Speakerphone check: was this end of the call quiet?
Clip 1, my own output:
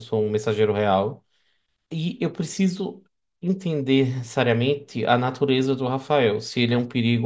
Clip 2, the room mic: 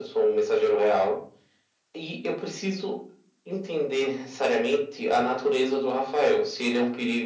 Yes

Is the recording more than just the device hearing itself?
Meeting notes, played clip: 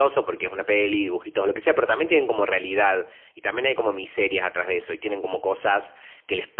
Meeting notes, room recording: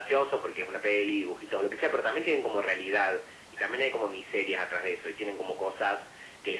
No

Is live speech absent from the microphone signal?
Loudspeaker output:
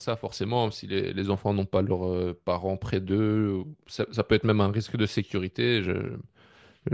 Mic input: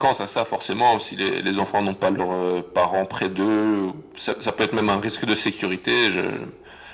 Yes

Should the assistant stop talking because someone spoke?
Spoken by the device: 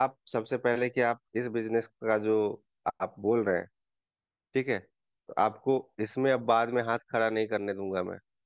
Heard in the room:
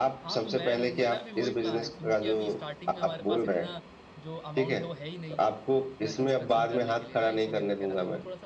Yes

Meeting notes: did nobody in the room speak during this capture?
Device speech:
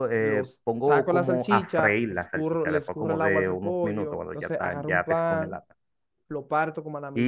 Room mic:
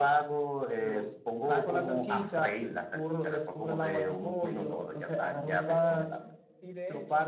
No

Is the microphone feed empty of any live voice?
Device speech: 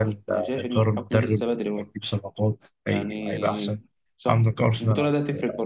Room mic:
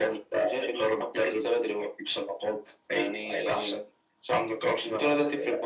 Yes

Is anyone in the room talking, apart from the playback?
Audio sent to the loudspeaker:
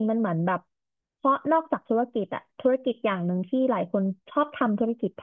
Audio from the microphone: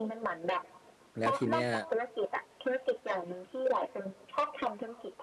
Yes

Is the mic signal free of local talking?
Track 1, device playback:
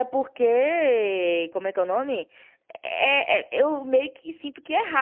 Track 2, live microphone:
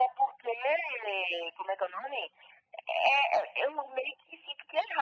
Yes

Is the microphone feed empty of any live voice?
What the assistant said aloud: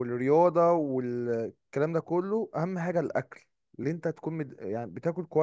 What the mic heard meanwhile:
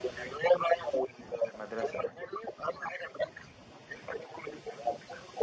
No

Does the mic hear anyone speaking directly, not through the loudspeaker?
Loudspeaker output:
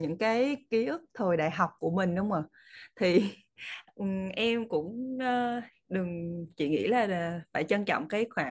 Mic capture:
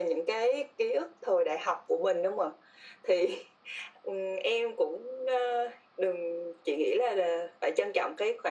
No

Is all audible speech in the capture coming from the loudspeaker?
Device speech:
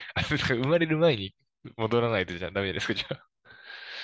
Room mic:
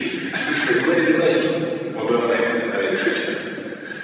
Yes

